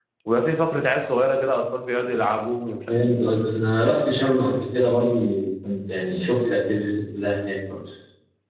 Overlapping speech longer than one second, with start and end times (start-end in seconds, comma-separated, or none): none